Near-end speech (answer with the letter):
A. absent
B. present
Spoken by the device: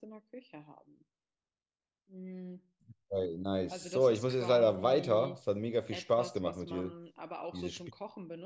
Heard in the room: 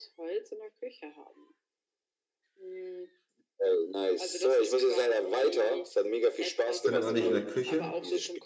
B